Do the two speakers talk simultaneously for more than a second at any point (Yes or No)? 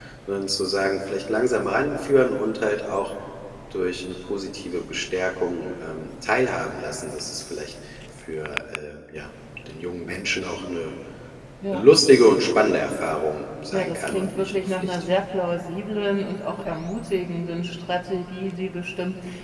Yes